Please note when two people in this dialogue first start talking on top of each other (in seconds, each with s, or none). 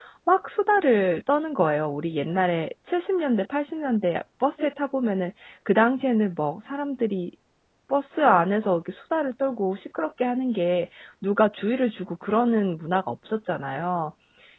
none